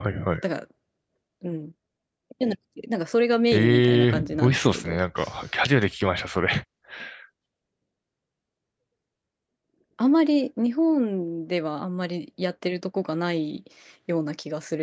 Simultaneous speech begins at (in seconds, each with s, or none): 3.5 s